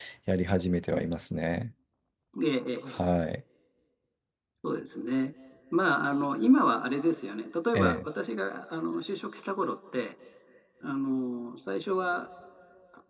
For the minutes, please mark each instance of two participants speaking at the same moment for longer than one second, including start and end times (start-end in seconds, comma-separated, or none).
none